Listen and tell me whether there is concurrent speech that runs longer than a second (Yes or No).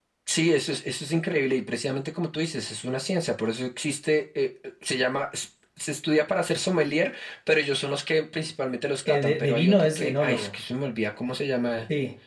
Yes